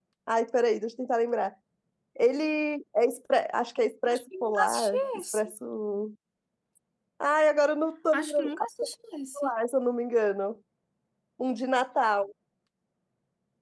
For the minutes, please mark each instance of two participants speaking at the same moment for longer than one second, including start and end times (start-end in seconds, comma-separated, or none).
4.1-5.5